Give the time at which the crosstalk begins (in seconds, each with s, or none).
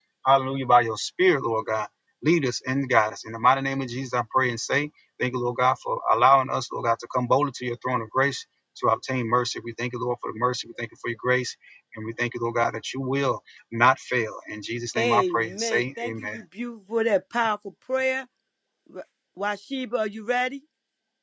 15.0 s